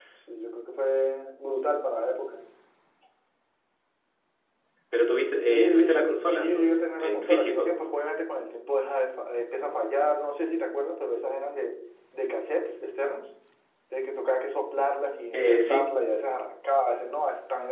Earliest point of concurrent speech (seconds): 5.4 s

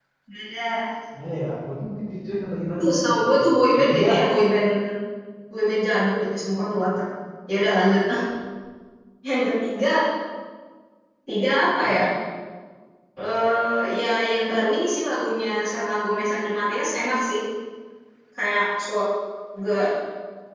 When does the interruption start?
2.8 s

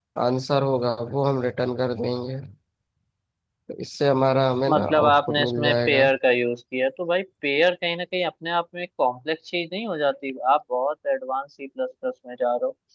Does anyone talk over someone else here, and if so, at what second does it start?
4.7 s

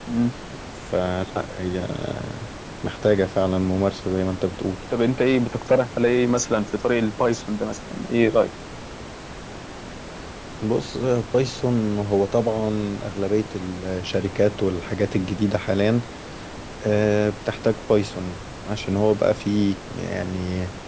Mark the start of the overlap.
none

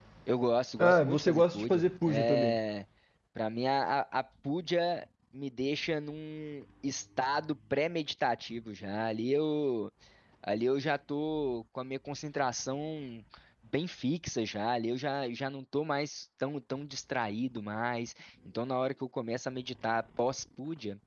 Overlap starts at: 0.8 s

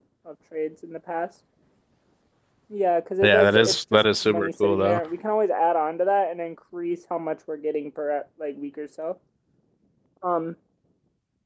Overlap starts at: 3.2 s

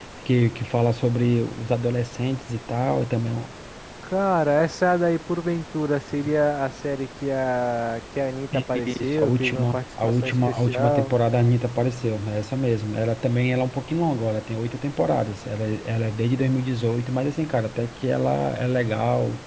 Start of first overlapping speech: 9.0 s

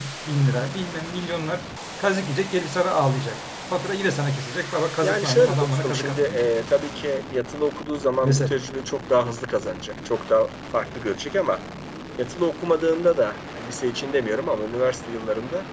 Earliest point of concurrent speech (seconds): 5.0 s

